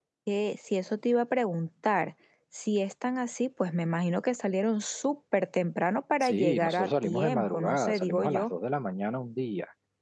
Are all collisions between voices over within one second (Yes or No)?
No